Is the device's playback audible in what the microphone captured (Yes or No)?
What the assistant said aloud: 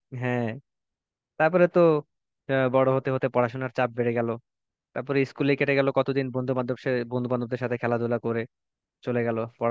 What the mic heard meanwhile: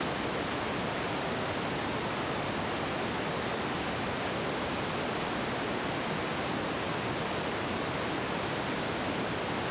No